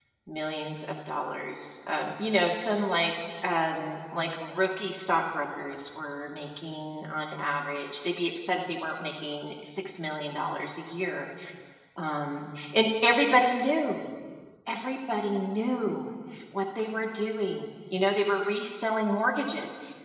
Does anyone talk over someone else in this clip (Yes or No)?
No